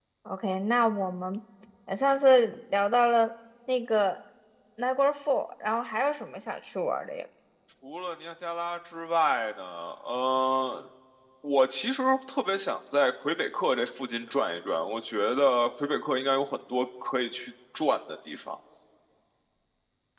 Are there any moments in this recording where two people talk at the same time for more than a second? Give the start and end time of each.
none

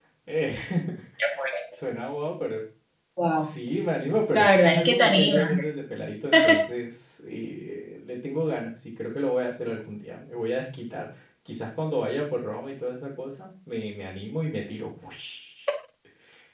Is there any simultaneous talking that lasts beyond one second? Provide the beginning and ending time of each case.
4.3-5.7

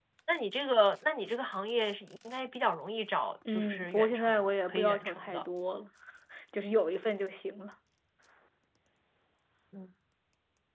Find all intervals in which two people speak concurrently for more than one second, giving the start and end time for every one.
3.5-5.4

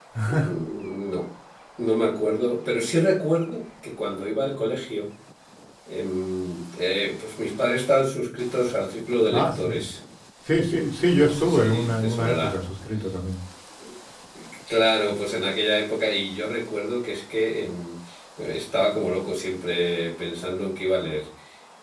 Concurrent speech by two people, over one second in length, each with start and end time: 11.2-12.5

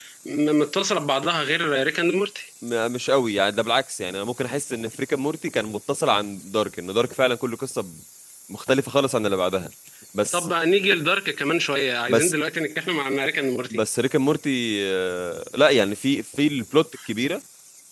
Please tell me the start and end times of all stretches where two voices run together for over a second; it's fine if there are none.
none

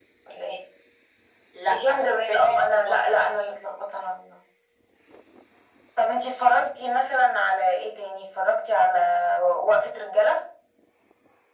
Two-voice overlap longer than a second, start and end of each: 1.7-3.2

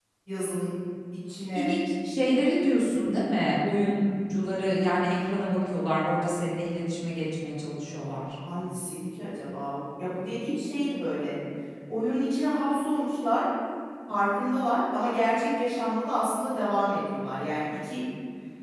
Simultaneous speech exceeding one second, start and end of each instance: none

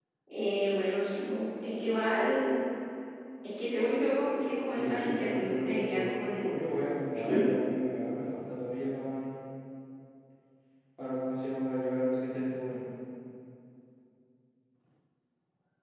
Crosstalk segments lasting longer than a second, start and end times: 4.7-6.8

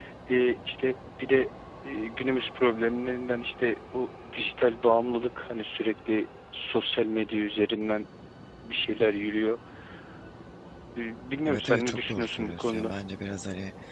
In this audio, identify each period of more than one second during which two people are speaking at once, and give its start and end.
11.5-12.9

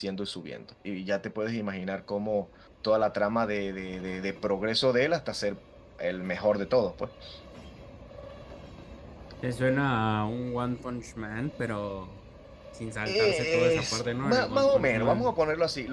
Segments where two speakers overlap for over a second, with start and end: 13.1-15.4

